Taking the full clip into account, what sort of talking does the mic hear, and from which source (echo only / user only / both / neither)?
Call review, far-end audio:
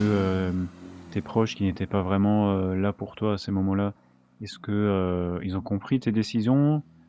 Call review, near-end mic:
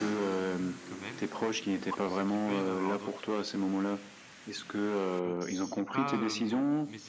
both